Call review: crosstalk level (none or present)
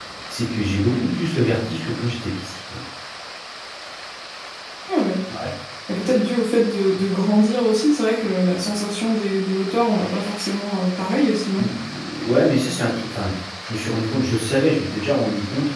none